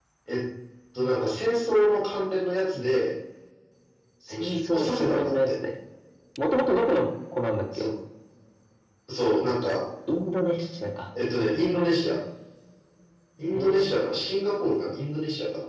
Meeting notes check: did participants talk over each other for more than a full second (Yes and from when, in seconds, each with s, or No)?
Yes, from 4.3 s